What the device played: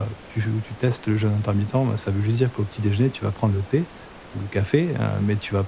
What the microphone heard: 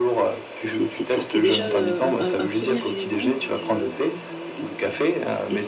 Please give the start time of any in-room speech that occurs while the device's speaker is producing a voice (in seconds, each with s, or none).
0.6 s